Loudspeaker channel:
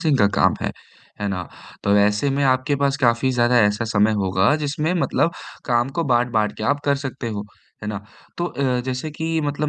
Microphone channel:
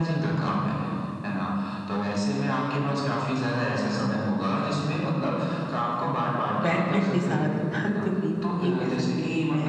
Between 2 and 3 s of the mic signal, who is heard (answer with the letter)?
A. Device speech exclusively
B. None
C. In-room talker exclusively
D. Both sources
A